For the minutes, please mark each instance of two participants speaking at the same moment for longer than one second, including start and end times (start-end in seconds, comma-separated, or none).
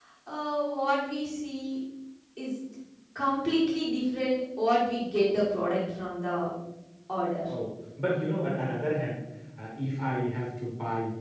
none